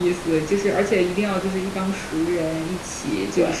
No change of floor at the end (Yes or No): Yes